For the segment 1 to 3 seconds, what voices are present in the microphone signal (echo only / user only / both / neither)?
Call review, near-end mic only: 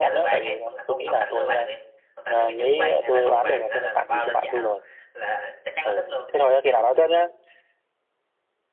both